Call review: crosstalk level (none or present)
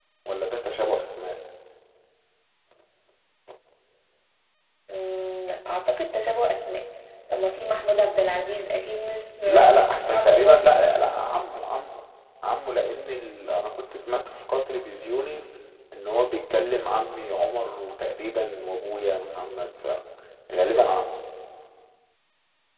present